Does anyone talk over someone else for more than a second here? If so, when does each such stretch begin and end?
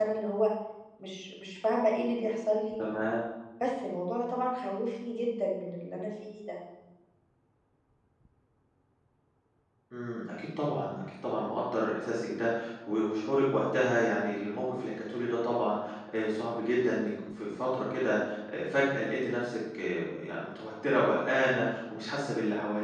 none

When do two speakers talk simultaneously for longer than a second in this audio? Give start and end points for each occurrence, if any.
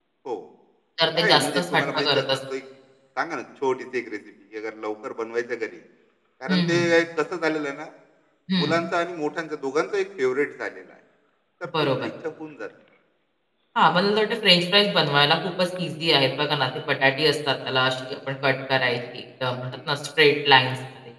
1.1-2.4

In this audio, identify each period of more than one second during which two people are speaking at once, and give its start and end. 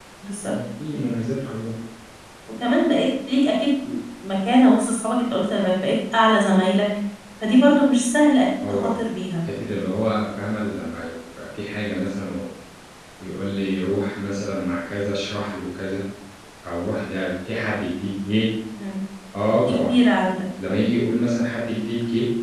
none

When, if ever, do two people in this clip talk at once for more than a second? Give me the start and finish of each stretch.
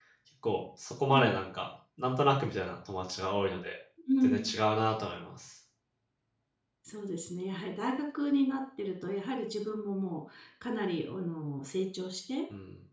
none

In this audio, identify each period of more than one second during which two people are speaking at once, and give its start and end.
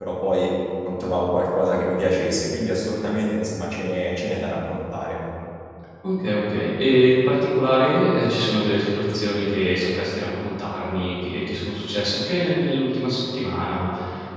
none

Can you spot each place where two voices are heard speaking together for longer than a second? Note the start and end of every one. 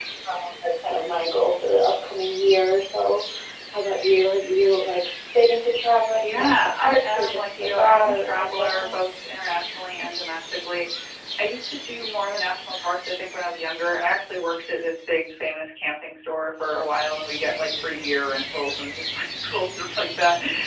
6.2-8.9

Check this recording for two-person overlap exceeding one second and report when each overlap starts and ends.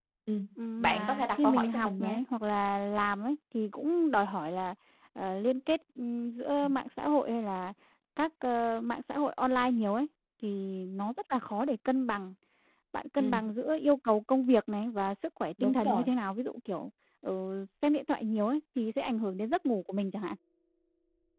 0.8-2.2

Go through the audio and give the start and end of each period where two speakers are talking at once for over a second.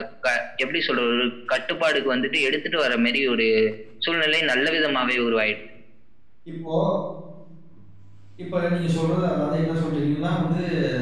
none

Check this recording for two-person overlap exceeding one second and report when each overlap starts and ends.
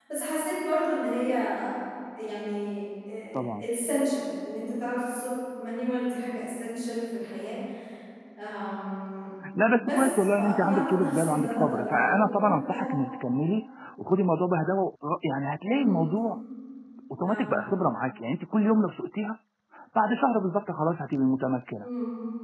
9.8-12.9

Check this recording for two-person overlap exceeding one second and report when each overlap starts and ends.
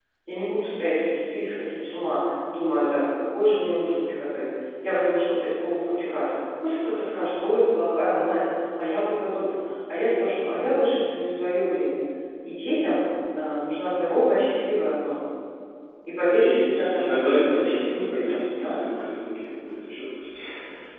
16.3-18.8

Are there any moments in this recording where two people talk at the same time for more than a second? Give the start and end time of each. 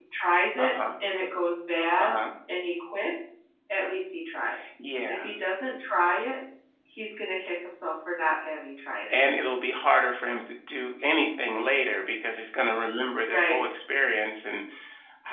none

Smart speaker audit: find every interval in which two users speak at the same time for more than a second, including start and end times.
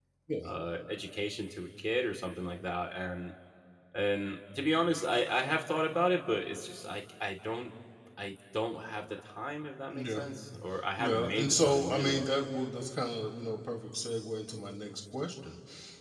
11.0-12.3

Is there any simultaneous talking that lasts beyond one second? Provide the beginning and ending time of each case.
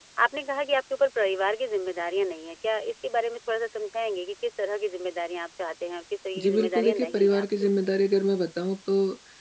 6.4-7.9

